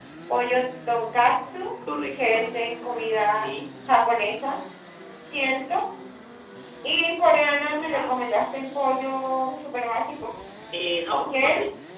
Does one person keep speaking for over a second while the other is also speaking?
No

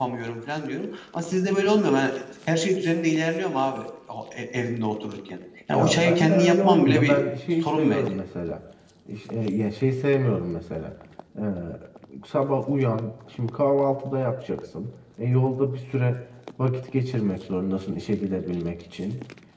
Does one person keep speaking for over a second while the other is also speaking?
Yes, from 5.7 s

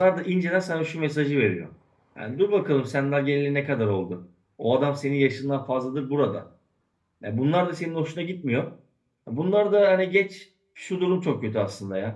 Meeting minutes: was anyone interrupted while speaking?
No

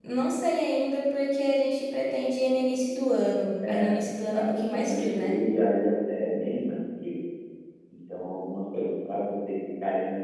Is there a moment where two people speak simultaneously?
Yes, from 3.6 s

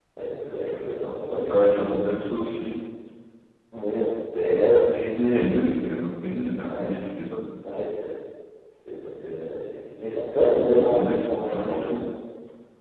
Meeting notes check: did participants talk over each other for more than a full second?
Yes, from 0.6 s

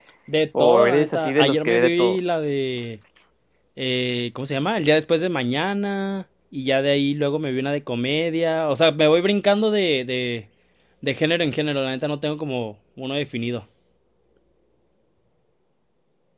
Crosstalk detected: Yes, from 0.6 s

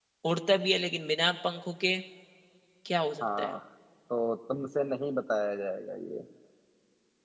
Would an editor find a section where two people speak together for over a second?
No

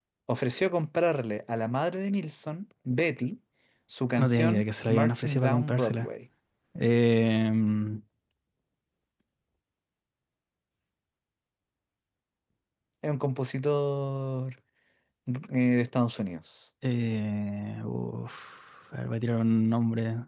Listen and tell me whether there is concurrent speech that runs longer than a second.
Yes, from 4.2 s

